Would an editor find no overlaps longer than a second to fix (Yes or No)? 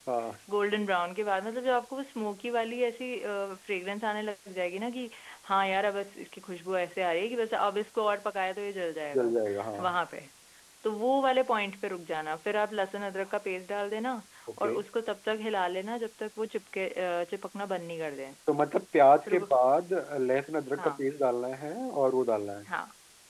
Yes